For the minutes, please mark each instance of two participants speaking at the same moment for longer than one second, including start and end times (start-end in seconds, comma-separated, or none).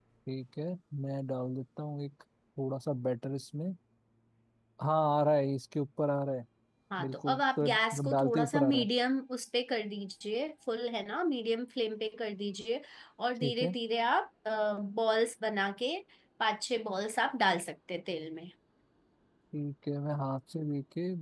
7.0-8.9